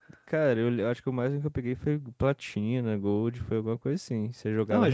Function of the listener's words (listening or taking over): taking over